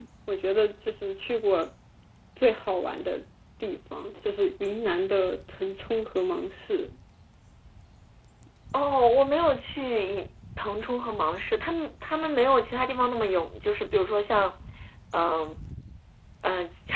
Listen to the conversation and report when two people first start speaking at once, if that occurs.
none

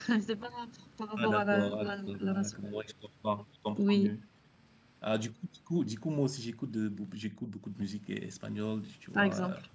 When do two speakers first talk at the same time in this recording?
1.2 s

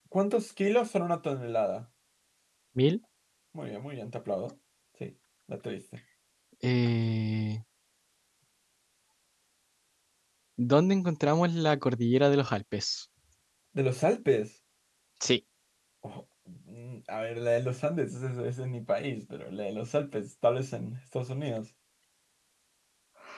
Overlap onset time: none

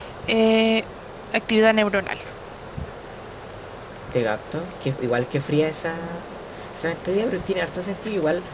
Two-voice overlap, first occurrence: none

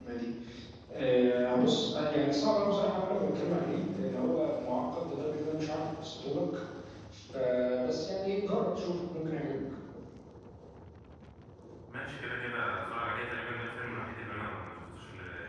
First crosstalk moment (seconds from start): none

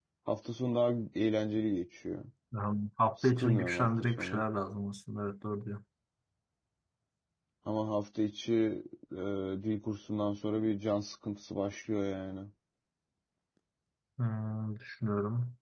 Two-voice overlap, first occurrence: 3.2 s

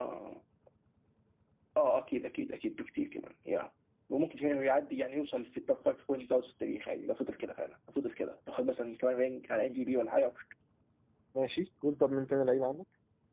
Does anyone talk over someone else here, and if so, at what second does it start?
none

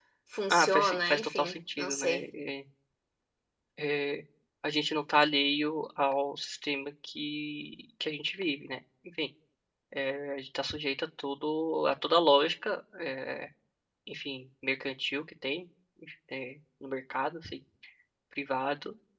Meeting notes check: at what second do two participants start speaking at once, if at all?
0.5 s

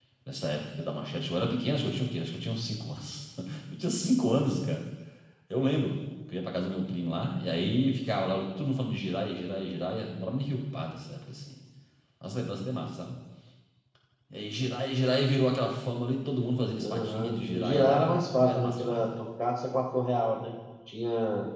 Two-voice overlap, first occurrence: 16.8 s

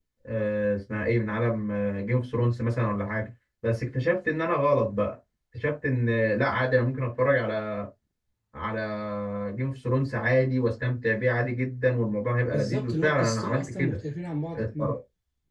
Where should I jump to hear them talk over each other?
12.5 s

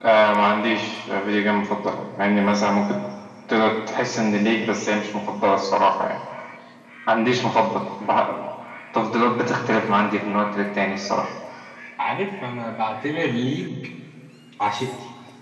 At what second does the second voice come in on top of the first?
none

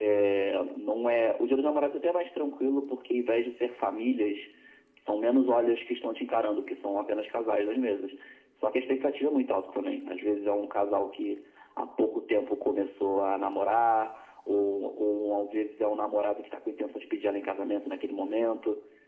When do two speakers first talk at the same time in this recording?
none

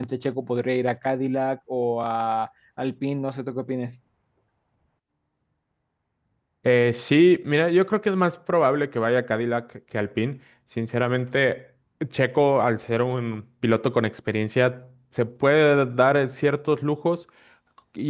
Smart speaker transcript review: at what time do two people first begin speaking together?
none

